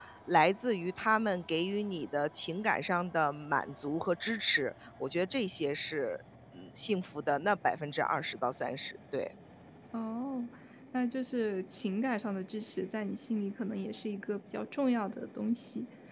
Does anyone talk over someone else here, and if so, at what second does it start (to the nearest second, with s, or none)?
none